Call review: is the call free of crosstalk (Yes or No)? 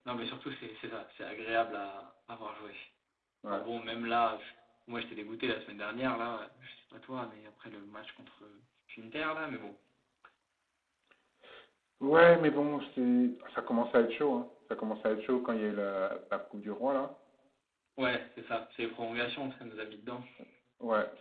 Yes